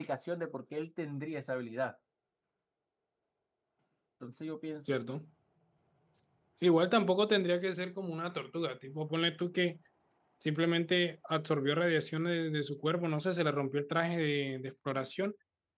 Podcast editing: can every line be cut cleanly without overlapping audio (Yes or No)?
Yes